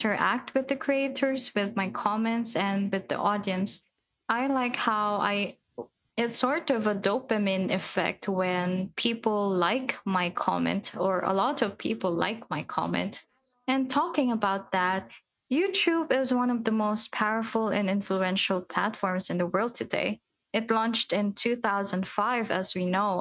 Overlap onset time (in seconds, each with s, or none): none